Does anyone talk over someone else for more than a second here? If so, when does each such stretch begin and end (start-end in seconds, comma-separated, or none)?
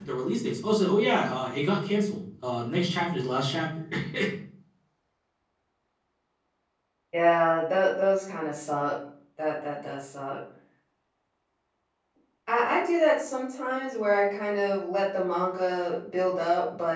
none